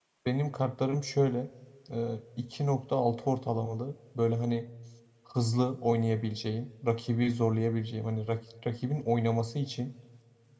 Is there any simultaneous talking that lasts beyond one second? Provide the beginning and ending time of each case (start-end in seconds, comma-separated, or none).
none